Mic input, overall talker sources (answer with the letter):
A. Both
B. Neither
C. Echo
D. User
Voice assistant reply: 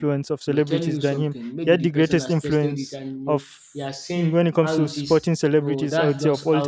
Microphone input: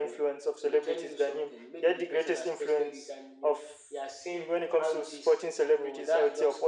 C